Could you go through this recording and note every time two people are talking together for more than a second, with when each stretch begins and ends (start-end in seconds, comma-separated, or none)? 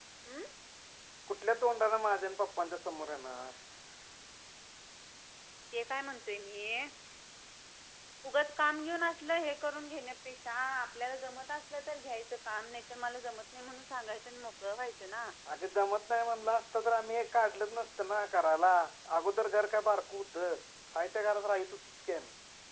none